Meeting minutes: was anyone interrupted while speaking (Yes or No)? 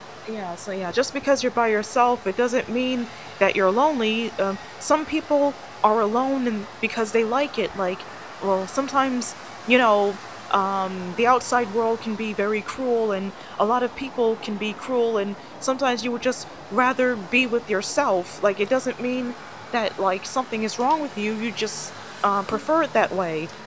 No